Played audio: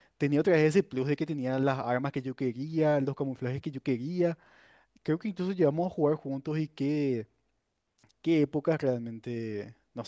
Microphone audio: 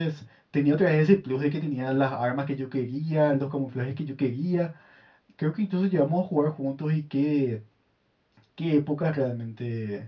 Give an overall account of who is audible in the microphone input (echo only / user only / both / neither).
echo only